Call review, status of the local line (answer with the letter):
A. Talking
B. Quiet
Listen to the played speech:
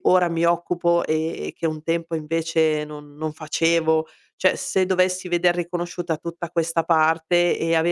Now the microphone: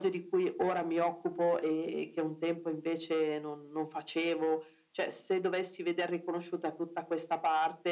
B